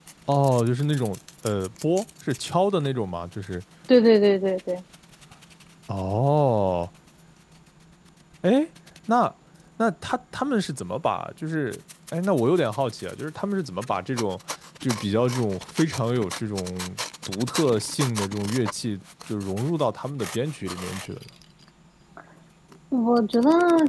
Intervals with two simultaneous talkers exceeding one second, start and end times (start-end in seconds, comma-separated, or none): none